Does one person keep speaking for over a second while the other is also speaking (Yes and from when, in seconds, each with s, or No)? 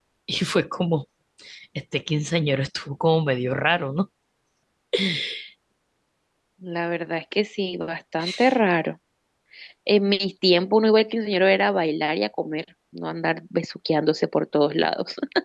No